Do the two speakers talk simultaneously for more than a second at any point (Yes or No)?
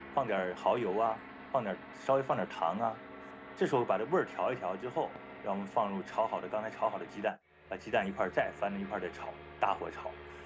No